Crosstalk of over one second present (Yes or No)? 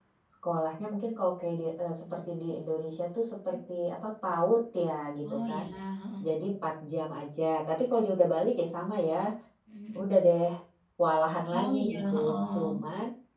Yes